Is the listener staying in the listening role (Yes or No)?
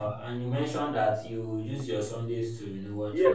No